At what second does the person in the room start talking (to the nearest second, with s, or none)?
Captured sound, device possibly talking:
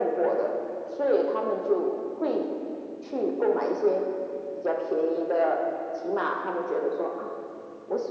none